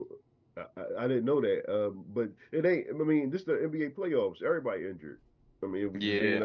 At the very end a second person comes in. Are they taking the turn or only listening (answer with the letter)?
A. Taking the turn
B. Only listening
A